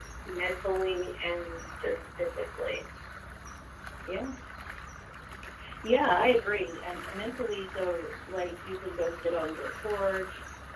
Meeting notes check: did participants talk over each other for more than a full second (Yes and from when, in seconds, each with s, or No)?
No